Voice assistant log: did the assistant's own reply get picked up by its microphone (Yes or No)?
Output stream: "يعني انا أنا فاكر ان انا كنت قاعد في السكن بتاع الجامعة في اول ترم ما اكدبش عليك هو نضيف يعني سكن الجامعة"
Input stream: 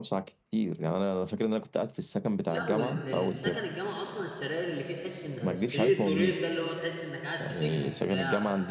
Yes